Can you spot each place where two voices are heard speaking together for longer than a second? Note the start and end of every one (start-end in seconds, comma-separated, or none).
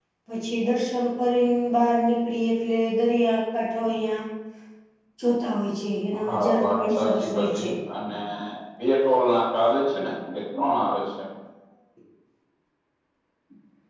6.2-7.7